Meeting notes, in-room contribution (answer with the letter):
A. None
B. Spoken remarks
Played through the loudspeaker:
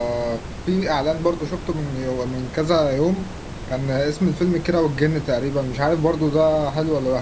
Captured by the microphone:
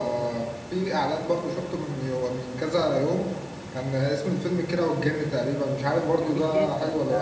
B